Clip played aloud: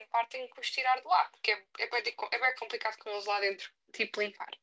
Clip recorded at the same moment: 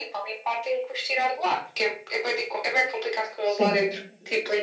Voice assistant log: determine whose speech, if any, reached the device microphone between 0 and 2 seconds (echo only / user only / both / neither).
echo only